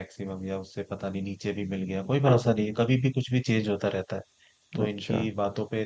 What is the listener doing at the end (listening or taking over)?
listening